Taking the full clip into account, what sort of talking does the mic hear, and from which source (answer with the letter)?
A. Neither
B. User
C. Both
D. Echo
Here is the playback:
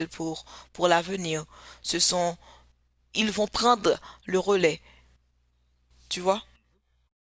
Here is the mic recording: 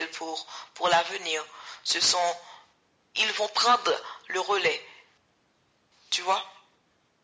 D